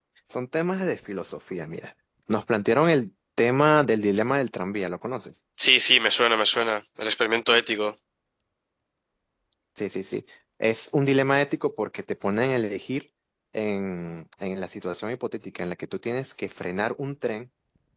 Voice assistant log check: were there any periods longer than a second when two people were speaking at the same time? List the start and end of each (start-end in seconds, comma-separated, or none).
none